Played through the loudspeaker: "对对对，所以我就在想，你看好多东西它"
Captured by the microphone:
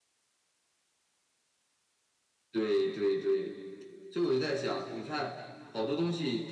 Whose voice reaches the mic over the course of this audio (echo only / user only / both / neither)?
echo only